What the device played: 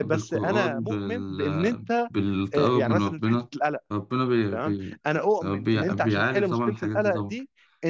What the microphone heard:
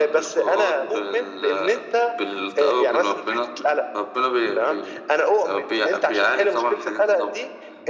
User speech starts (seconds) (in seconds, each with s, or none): none